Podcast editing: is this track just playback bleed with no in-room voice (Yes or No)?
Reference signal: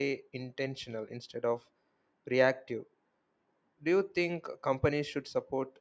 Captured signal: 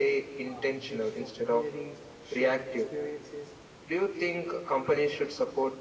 No